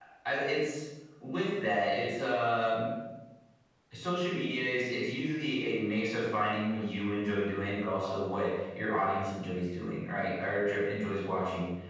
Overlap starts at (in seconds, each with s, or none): none